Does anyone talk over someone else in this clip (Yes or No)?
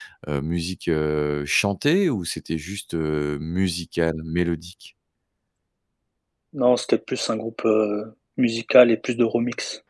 No